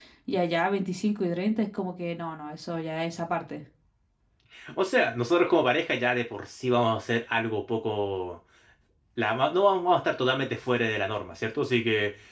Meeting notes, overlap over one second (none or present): none